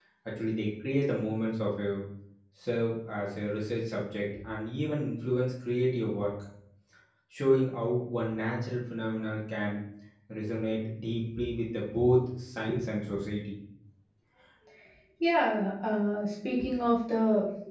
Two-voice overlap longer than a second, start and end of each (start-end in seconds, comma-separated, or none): none